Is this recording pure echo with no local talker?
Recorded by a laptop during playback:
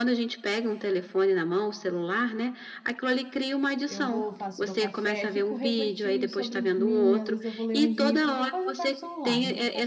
No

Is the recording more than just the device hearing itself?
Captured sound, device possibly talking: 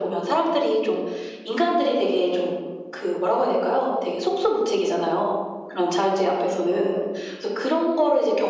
No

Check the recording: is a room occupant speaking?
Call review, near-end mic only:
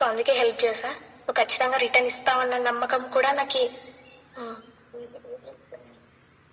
No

